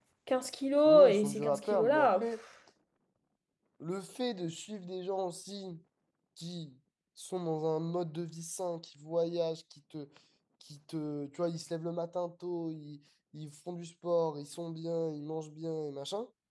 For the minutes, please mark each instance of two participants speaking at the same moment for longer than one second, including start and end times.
0.8-2.3

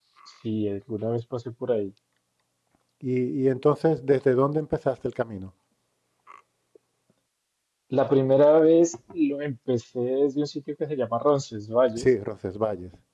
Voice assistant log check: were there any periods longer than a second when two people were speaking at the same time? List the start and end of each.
none

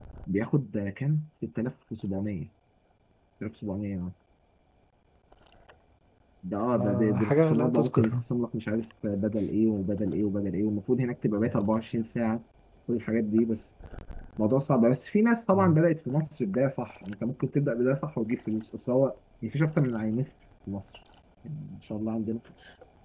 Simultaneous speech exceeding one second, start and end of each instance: 6.7-8.2

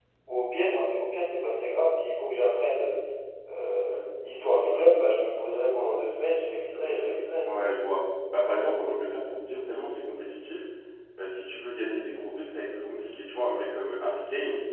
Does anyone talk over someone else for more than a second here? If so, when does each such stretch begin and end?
none

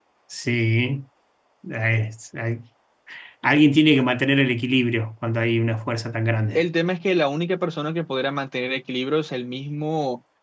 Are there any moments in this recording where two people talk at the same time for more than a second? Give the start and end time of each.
none

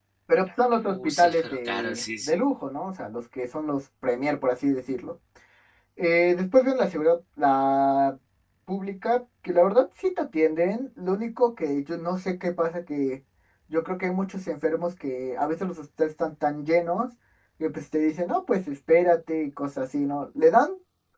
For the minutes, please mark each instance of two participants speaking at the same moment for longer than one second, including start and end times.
0.9-2.3

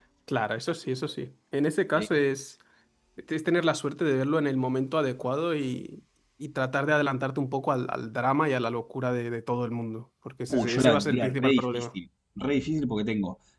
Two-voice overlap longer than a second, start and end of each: 10.5-11.8

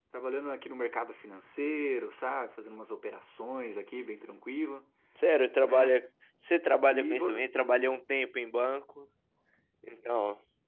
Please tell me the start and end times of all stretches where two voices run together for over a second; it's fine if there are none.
none

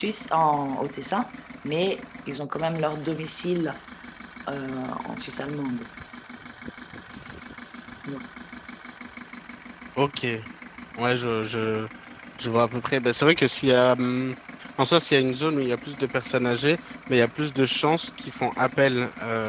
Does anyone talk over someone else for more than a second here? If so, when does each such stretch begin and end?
none

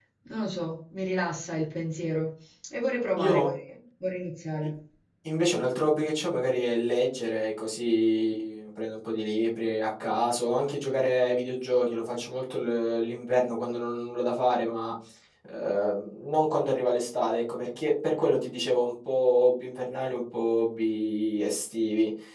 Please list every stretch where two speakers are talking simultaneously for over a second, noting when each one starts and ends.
none

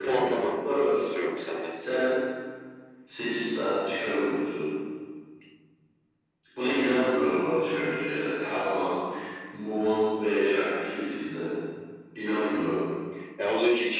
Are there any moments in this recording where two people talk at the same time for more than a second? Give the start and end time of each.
none

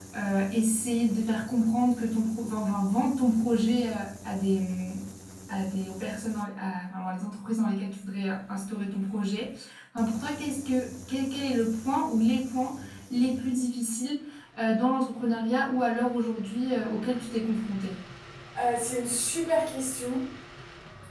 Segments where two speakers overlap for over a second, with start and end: none

